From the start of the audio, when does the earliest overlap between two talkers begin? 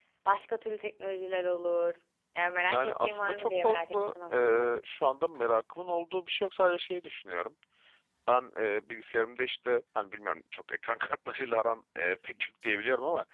3 s

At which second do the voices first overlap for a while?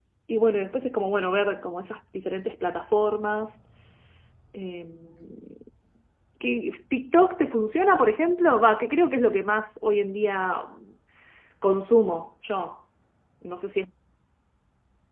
none

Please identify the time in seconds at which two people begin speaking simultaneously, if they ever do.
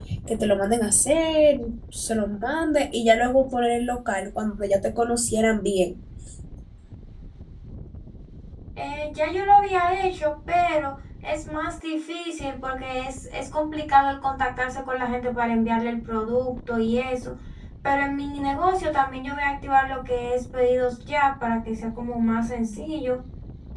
none

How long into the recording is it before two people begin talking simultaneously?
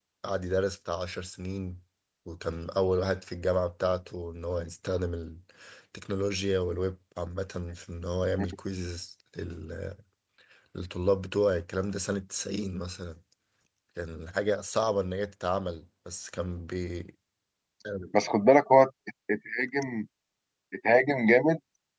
none

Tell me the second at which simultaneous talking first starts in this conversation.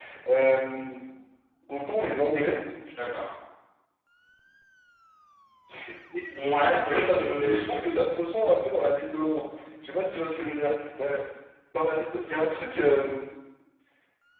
7 s

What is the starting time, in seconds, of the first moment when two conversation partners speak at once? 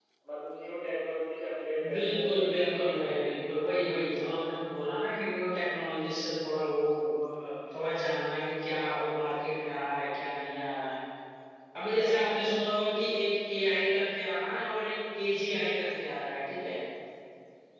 2 s

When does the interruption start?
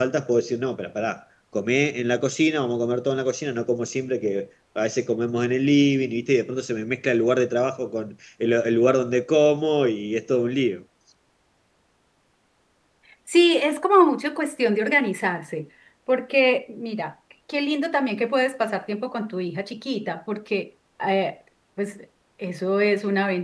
none

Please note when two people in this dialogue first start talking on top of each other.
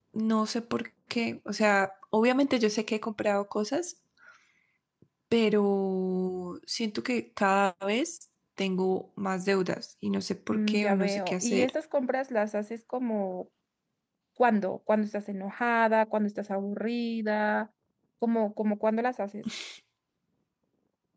11 s

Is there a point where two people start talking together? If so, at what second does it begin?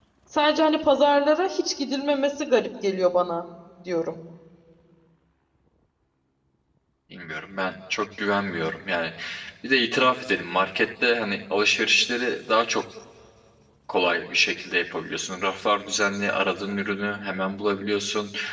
none

